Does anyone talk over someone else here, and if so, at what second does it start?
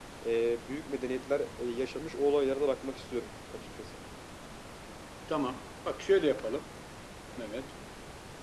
none

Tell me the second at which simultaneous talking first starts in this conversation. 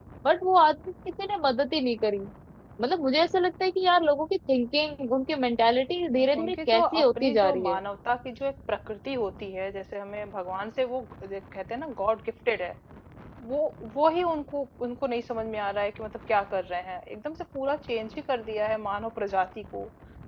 6.1 s

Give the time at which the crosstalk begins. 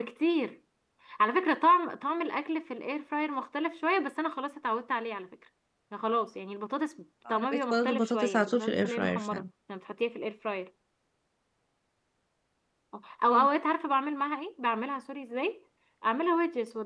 7.3 s

